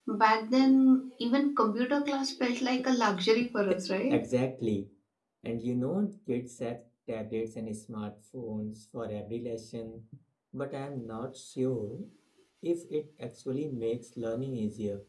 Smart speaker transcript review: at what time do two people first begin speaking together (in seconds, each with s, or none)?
none